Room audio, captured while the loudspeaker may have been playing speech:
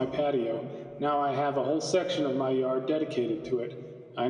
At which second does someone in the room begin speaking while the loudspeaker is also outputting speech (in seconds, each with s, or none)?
none